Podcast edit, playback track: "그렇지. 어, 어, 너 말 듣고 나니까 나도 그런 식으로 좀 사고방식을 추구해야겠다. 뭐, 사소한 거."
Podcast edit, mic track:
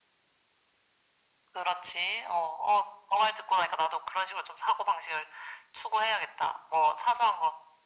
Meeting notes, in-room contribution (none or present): none